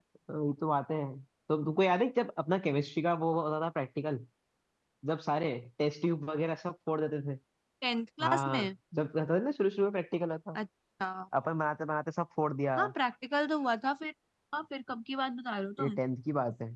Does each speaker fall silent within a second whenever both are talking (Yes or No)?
Yes